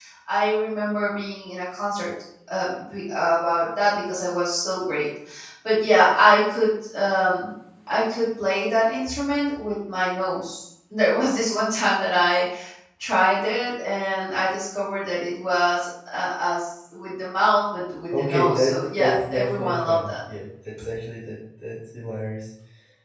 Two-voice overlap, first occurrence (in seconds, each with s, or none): 18.1 s